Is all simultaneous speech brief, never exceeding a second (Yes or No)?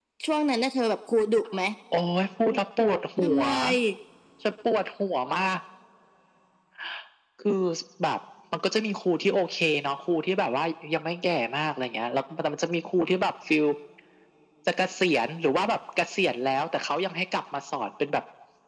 Yes